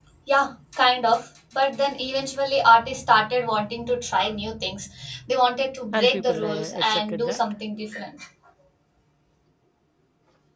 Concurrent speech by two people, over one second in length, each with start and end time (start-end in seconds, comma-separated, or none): 5.9-7.4